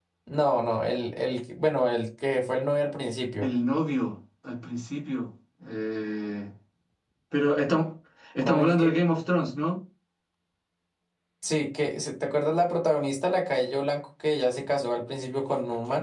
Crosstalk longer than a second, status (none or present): none